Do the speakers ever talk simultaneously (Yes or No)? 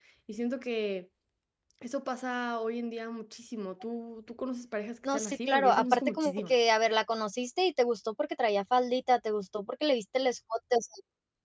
Yes